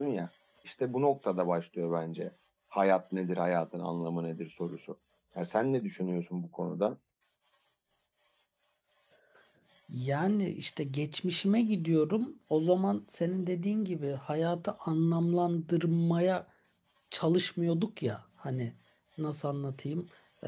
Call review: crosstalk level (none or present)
none